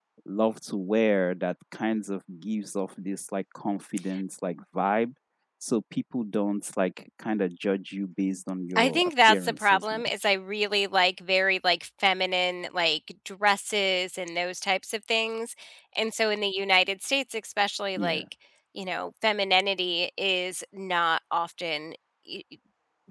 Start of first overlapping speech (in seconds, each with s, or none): 8.8 s